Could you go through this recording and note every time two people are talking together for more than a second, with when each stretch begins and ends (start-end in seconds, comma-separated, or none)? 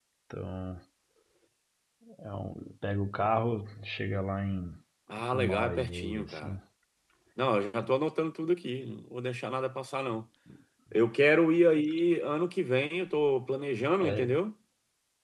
5.3-6.5